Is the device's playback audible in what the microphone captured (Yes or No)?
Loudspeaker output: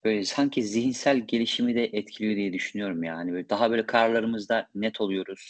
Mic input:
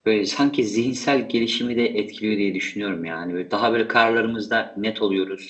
Yes